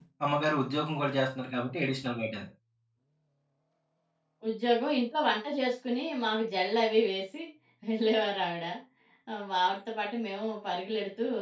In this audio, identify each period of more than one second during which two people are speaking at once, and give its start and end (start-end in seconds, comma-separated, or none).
none